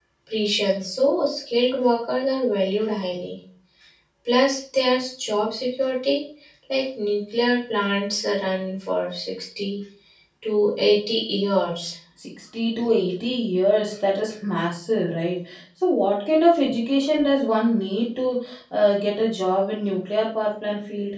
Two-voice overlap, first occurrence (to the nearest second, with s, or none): none